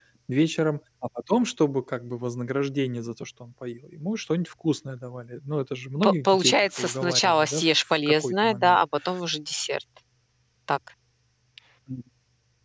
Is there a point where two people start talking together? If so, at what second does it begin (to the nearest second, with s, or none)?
6 s